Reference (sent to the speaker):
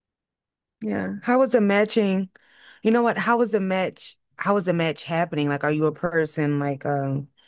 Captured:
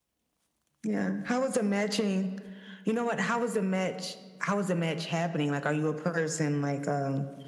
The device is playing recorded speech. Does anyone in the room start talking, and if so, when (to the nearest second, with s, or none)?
none